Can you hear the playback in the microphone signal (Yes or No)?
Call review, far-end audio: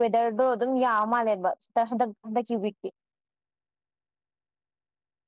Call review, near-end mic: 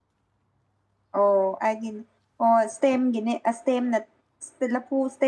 No